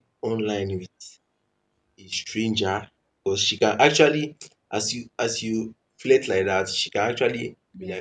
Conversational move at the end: listening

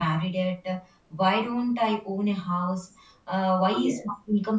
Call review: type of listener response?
listening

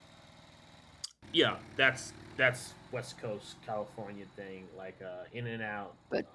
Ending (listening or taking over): listening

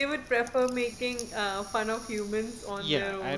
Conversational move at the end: taking over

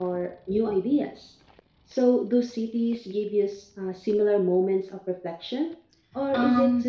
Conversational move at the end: taking over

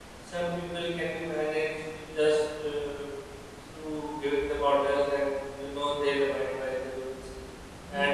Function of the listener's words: listening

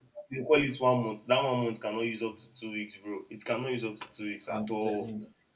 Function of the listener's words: taking over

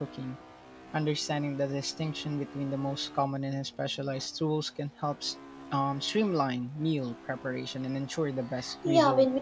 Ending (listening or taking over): taking over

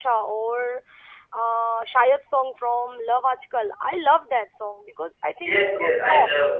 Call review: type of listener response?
taking over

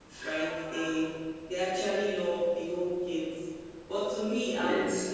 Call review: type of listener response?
listening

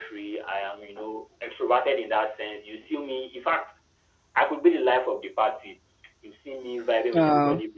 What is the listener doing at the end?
listening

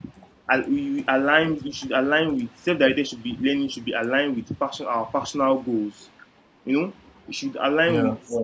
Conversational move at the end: listening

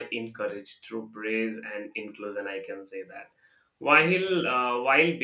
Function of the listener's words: listening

